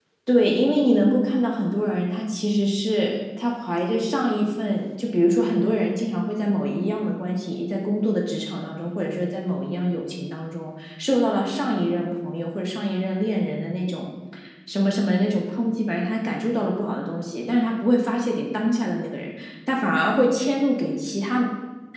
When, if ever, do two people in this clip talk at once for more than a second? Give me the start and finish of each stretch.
none

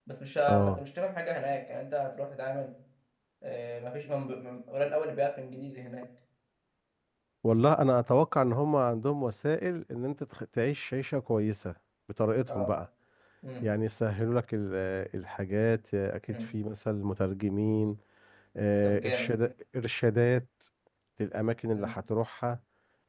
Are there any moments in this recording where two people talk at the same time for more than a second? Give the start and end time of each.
none

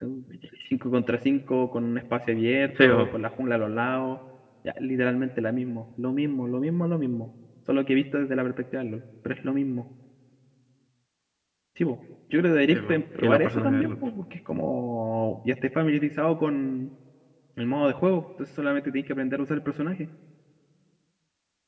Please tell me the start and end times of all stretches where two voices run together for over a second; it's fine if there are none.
12.7-13.9

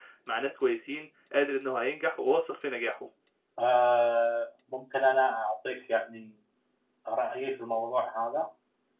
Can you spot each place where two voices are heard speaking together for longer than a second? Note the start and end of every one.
none

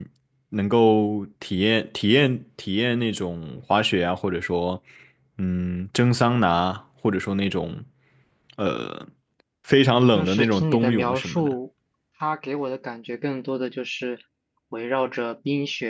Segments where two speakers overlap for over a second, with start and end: 10.1-11.5

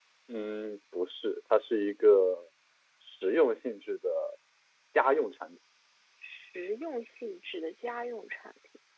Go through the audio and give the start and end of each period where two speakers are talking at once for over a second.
none

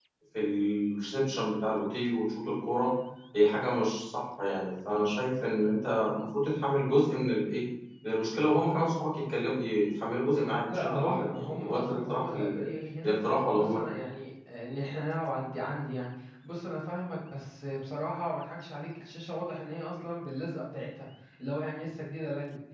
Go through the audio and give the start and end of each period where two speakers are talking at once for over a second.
10.7-12.7

